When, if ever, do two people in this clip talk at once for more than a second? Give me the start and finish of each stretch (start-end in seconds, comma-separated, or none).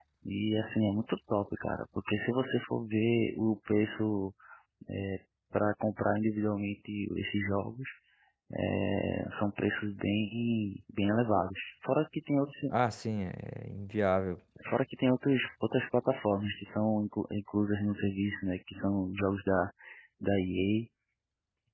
none